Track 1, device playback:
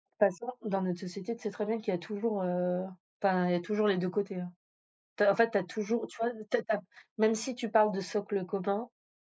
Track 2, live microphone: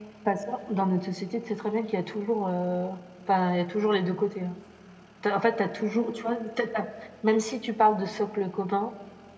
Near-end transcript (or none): none